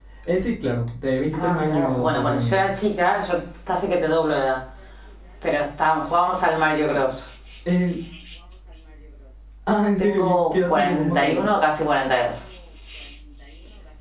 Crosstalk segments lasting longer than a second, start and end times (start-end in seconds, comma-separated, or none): 1.3-2.6, 10.0-11.4